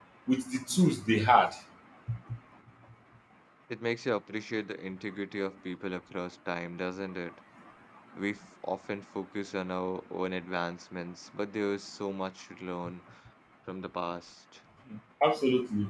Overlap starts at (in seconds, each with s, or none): none